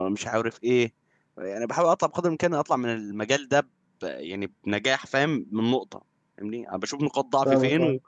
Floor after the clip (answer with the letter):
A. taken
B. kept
B